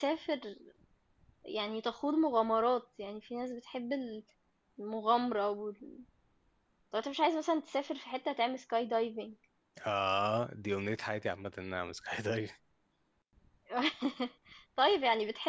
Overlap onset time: none

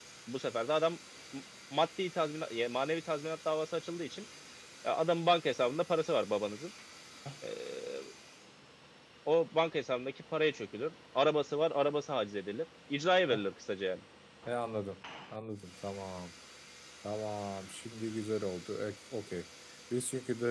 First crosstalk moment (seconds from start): none

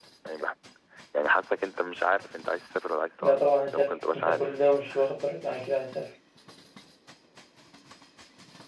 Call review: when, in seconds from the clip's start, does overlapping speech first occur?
3.2 s

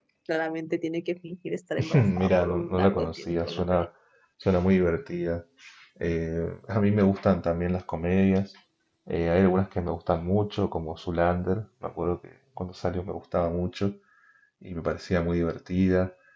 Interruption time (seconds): 1.9 s

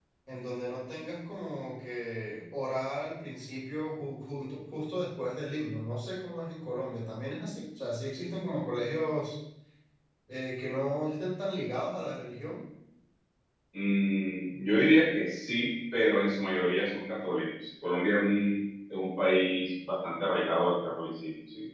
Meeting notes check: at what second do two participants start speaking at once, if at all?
none

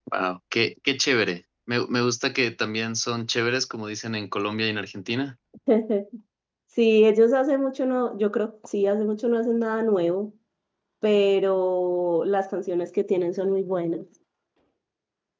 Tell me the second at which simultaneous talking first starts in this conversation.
none

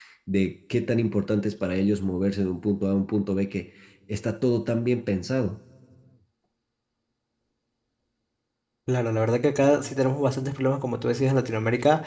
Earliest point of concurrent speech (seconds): none

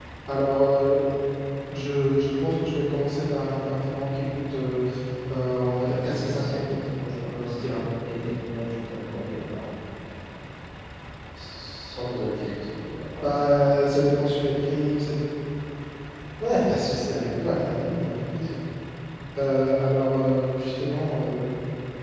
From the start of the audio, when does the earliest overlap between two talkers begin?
5.8 s

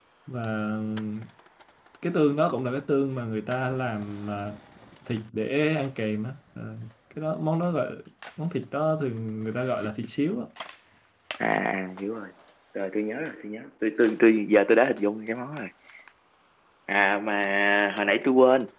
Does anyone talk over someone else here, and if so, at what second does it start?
none

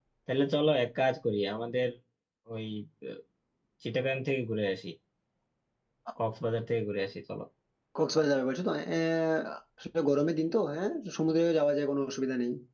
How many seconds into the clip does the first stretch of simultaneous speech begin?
none

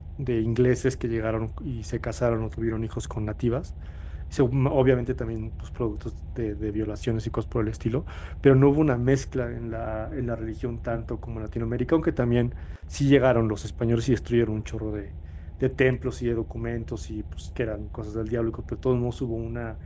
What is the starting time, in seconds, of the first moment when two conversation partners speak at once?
none

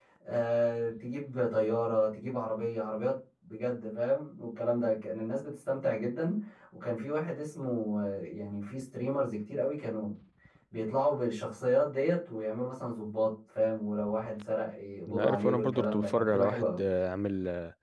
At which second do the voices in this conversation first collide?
15.1 s

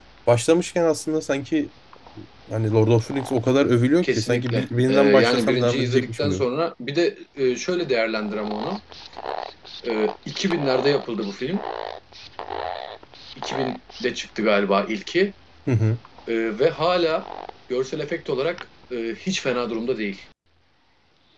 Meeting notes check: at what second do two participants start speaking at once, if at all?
4.0 s

